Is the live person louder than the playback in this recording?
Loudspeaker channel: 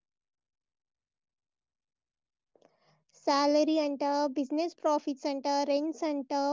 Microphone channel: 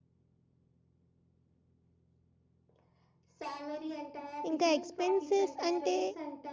Yes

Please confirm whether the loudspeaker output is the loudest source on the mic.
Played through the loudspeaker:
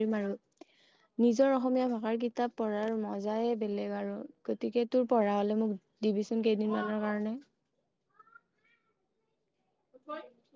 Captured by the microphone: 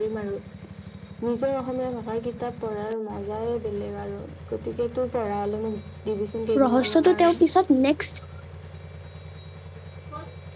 No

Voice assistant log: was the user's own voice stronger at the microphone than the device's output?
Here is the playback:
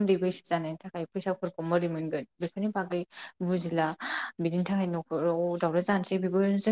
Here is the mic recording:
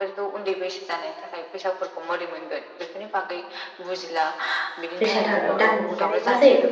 Yes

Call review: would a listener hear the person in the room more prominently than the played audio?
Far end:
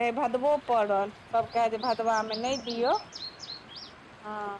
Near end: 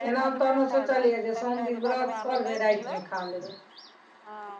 Yes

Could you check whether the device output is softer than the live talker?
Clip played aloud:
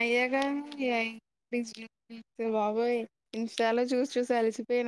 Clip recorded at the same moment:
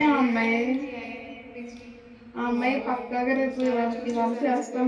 Yes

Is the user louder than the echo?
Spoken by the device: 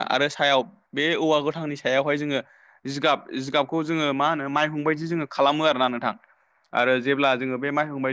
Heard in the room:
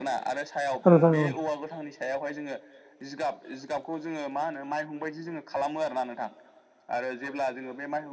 Yes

